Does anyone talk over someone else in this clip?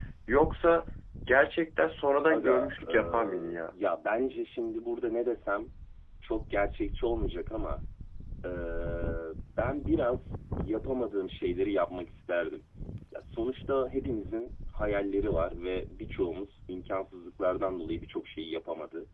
Yes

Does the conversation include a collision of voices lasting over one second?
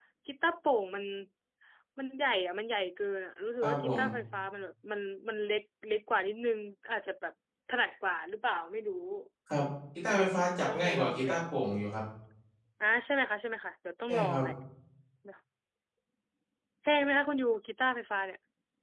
Yes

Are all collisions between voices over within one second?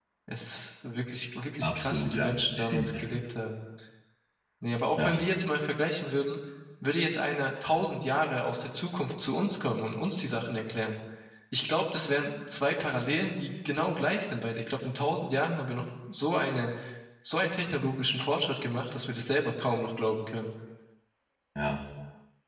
No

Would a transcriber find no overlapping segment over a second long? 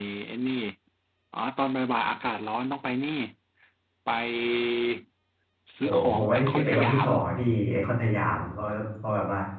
No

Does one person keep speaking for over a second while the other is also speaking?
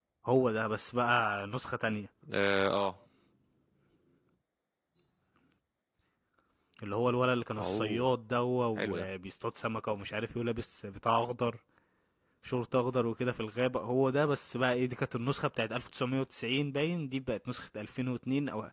No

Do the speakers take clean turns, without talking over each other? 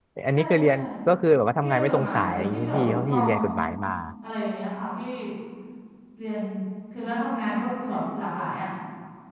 No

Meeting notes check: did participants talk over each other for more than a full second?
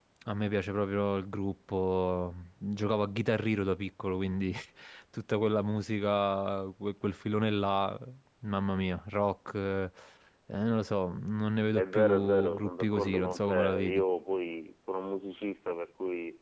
Yes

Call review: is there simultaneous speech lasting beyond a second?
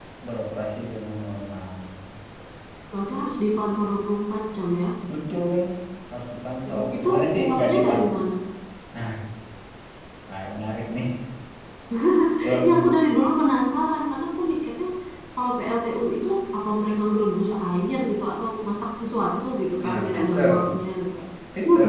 Yes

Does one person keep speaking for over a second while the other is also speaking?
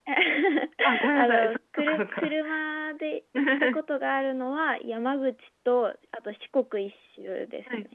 Yes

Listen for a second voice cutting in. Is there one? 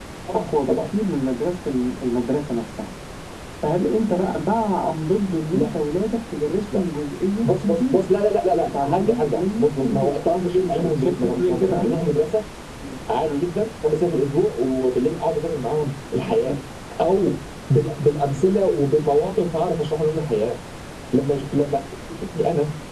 Yes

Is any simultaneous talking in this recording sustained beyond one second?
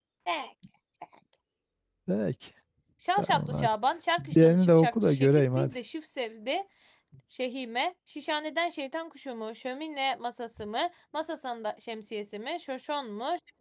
Yes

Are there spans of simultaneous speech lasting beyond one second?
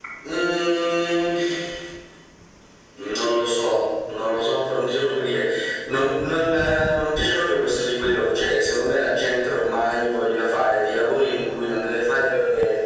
No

